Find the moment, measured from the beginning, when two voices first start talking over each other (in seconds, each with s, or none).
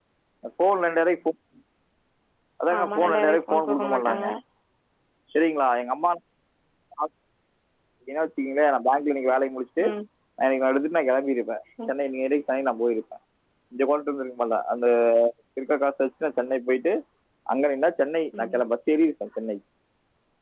2.8 s